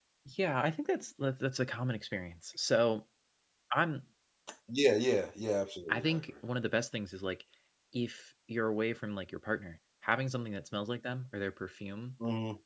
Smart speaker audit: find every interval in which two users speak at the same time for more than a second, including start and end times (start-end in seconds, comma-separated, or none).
none